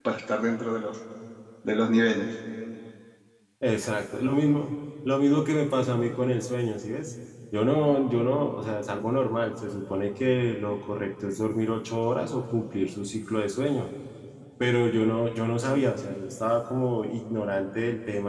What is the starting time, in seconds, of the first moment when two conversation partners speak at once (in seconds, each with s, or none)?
none